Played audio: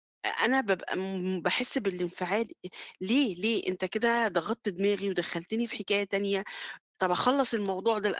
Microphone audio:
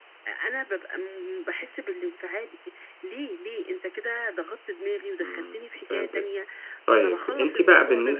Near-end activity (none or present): present